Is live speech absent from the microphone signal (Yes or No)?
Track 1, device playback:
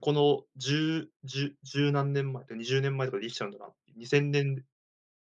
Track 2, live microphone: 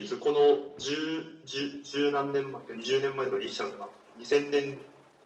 Yes